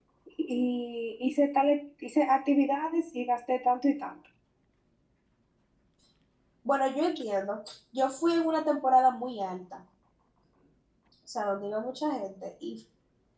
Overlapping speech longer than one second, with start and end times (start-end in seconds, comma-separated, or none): none